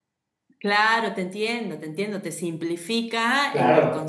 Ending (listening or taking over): listening